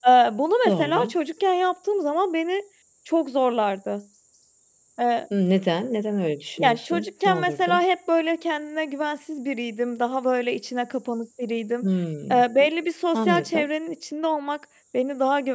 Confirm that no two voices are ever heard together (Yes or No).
No